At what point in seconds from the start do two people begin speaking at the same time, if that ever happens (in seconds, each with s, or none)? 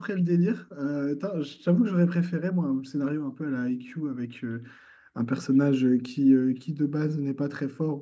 none